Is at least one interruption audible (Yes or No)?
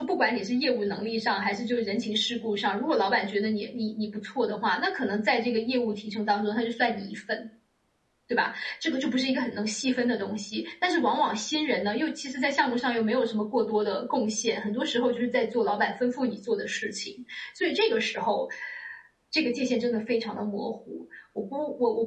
No